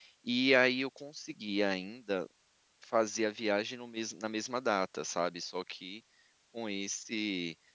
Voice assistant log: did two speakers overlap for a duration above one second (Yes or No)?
No